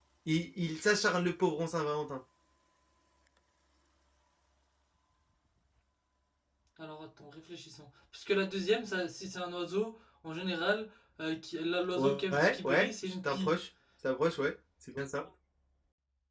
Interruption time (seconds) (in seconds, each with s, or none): 11.9 s